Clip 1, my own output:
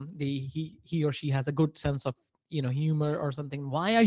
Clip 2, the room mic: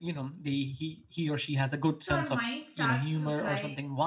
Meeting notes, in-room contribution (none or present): present